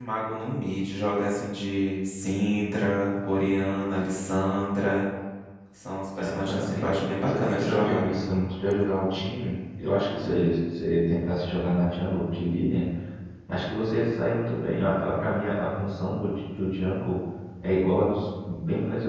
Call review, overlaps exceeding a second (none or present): present